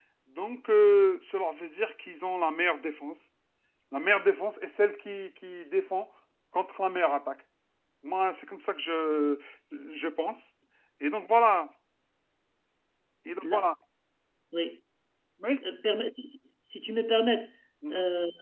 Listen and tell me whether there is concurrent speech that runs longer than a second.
No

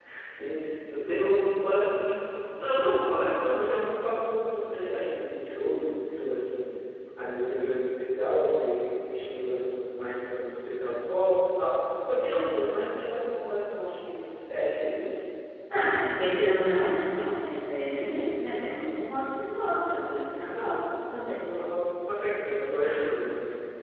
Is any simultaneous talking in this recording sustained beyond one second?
No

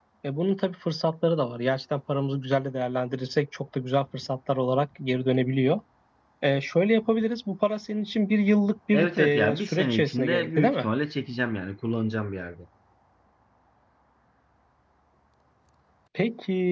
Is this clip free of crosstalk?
No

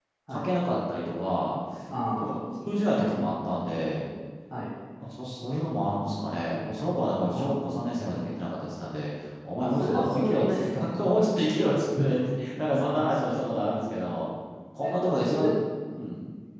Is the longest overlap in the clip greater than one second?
Yes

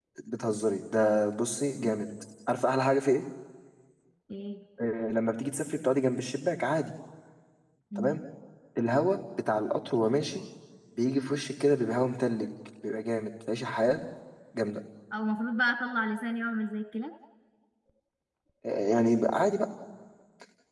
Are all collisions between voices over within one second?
Yes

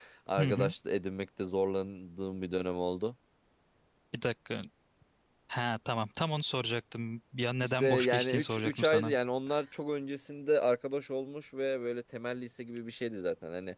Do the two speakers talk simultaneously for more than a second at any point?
Yes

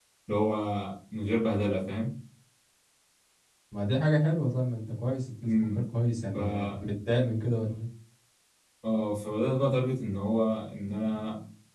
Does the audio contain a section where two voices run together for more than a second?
No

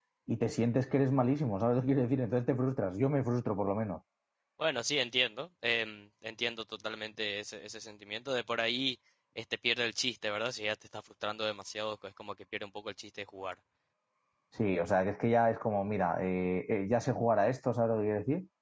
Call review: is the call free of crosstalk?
Yes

